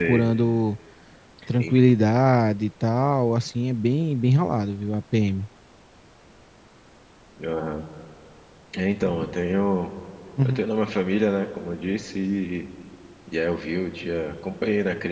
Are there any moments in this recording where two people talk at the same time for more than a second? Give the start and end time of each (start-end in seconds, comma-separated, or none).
none